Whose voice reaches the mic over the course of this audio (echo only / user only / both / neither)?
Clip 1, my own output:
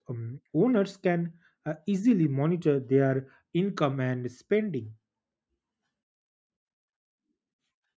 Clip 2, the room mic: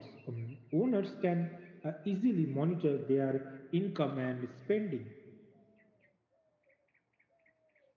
echo only